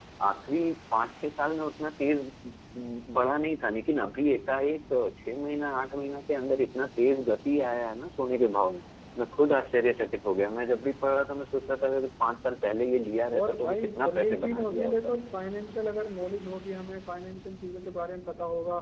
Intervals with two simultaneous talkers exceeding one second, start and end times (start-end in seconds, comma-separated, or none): 13.4-14.9